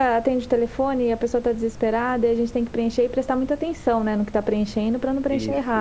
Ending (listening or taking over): listening